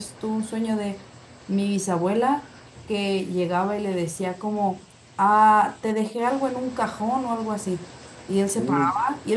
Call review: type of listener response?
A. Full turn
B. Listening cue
B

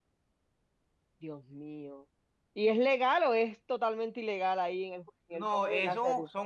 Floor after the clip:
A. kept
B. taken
B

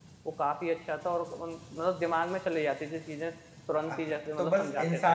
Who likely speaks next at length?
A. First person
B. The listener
B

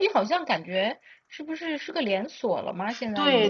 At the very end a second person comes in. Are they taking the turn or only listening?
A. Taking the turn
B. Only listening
A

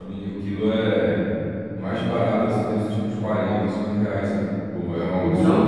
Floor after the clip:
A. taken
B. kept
A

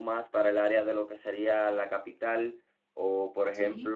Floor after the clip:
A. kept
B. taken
A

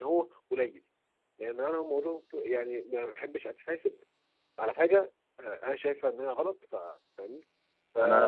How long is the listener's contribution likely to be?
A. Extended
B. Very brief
B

